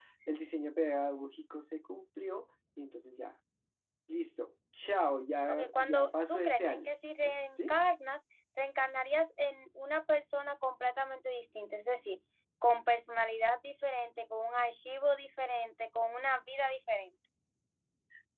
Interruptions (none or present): present